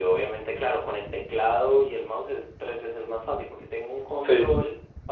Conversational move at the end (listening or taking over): listening